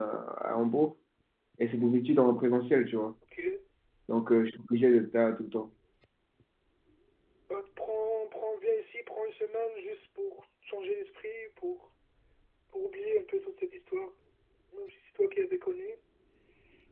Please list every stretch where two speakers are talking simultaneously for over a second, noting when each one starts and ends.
none

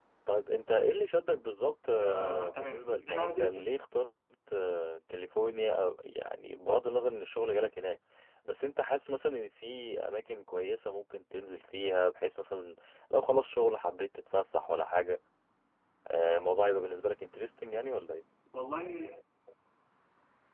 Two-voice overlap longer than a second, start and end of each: 1.9-3.6

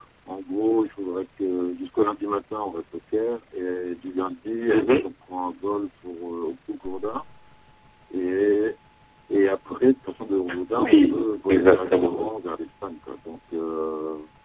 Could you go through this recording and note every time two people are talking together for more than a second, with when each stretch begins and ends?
10.7-12.3

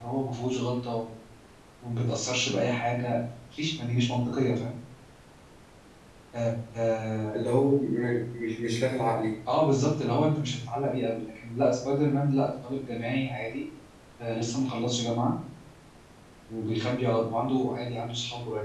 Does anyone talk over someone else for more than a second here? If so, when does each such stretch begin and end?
none

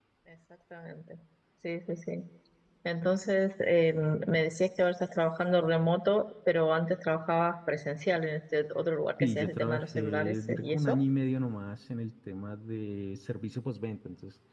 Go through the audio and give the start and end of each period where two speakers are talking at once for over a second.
9.2-11.0

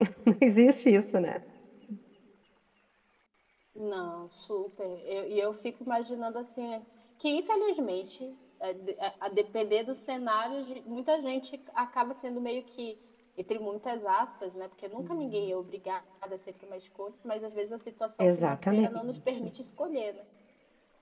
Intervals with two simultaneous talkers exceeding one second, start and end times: 18.2-19.5

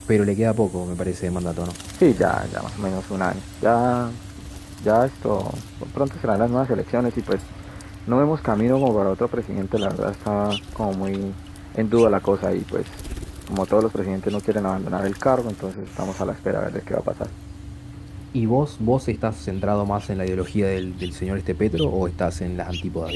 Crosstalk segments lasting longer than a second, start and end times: none

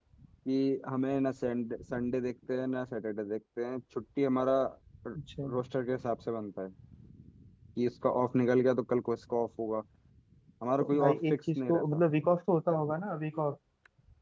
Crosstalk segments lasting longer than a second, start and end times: 10.8-12.0

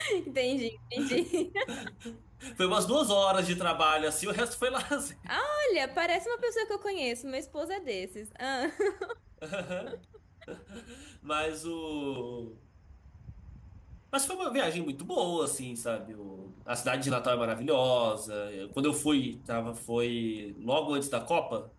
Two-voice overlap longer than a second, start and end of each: none

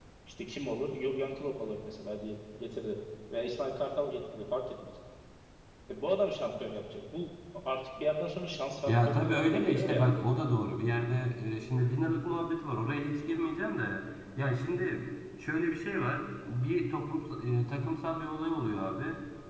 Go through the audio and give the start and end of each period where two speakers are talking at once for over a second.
8.9-10.1

